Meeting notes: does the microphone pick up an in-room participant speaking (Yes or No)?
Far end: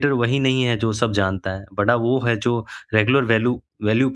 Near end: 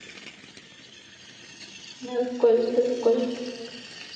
Yes